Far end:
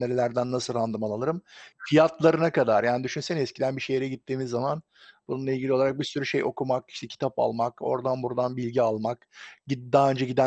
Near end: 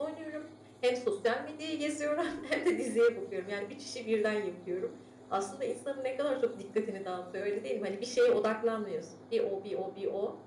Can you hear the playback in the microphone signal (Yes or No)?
No